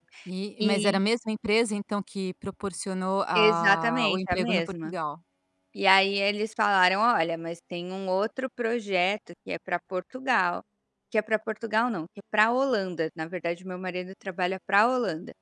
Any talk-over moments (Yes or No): Yes